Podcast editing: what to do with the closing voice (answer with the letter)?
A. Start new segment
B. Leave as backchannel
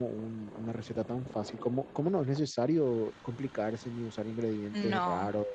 B